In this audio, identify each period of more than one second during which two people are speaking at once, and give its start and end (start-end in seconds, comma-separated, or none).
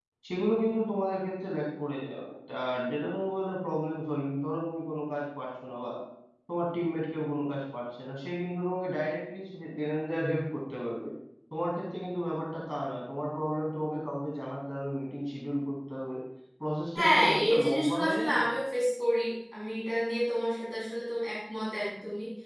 17.0-18.5